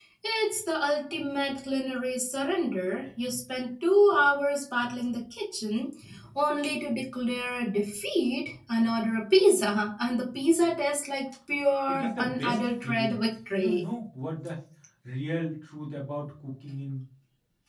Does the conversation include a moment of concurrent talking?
Yes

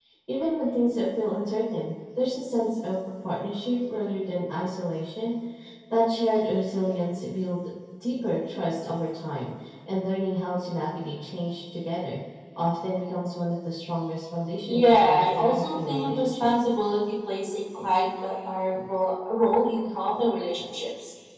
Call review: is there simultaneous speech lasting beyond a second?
Yes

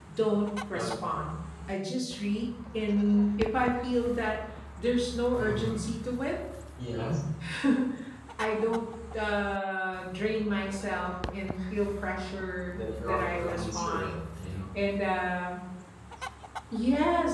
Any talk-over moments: Yes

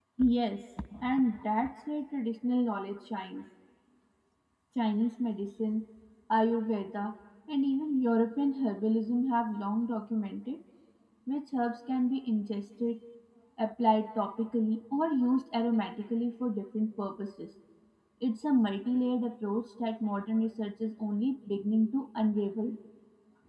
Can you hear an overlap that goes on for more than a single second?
No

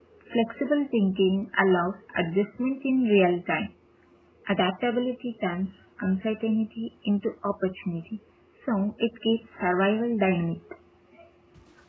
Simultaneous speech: No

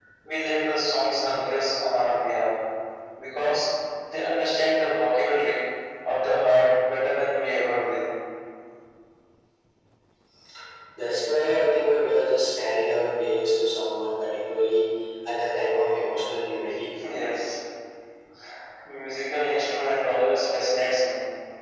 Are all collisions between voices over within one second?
Yes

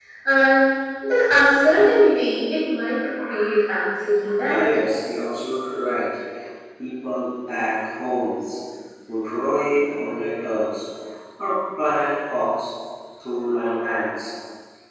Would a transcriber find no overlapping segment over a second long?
Yes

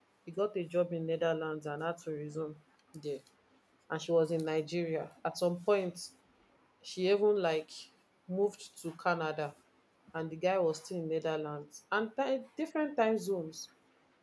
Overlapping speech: No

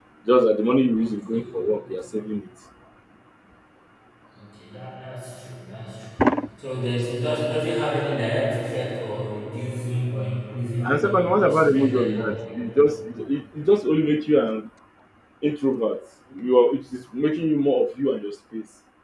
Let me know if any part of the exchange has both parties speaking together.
Yes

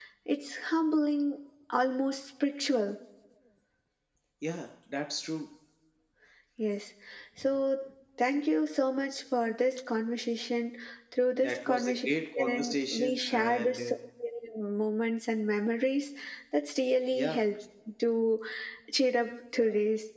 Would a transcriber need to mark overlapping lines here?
Yes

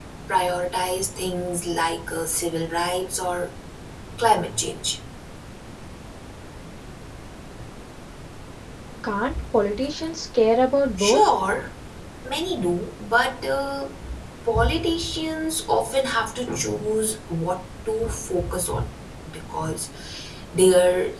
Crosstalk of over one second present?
No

